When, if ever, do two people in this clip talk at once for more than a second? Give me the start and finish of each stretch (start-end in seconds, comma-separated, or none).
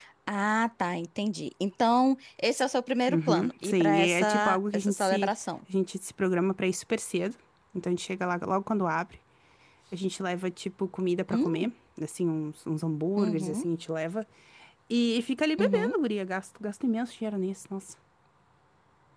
3.1-5.3